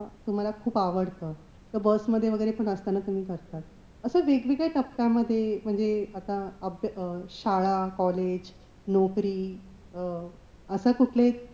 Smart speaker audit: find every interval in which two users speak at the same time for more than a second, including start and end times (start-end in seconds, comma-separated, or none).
none